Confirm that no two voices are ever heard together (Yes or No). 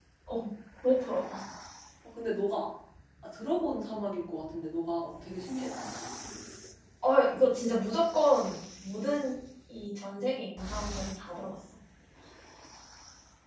Yes